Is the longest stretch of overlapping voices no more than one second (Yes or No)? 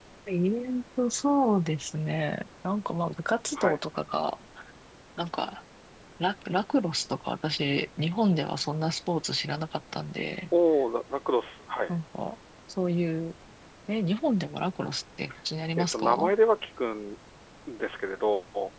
Yes